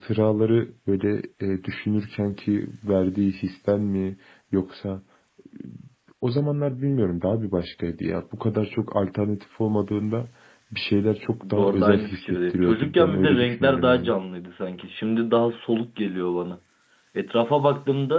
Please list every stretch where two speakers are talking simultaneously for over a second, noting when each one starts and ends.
11.4-14.1

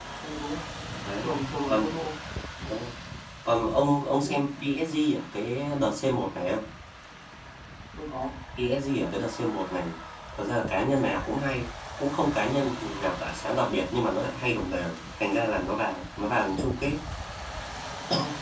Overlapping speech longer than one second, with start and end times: none

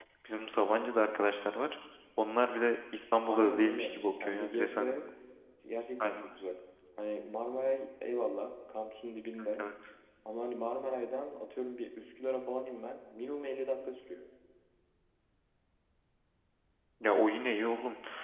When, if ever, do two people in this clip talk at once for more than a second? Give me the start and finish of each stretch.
3.2-4.9

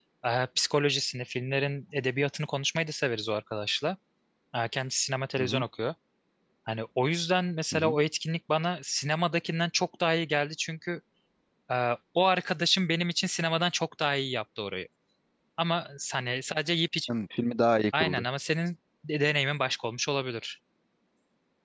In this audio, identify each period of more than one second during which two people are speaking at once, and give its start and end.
none

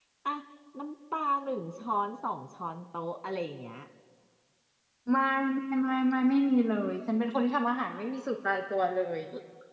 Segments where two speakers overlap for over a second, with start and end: none

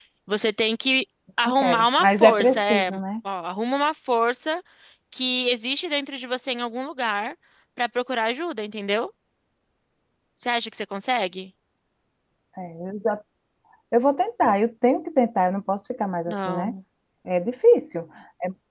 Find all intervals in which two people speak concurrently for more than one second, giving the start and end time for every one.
1.4-3.0

